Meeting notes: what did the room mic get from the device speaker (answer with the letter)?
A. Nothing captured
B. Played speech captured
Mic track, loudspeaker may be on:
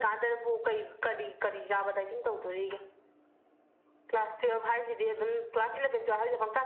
B